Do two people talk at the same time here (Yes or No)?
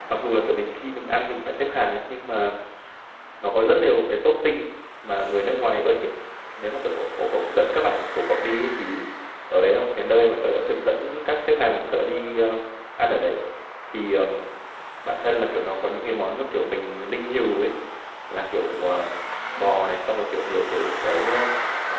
No